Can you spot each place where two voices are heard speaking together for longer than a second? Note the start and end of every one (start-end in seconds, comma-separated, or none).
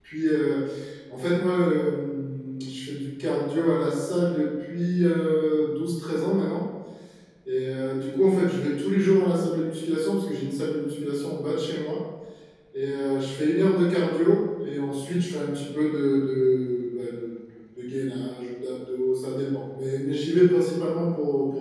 none